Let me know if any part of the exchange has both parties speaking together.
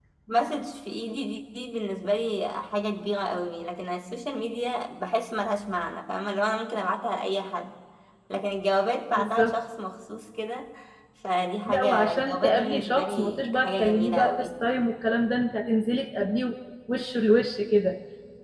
Yes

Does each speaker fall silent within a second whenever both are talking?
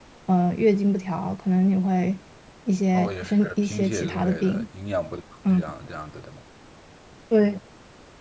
No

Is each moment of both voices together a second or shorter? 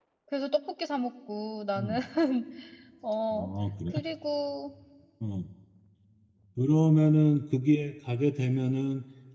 Yes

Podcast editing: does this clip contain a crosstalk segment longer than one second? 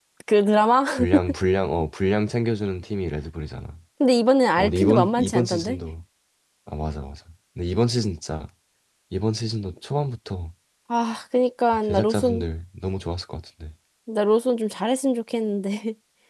Yes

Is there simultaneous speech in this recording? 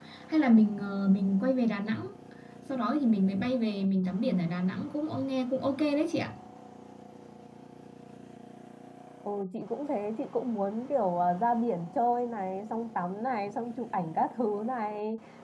No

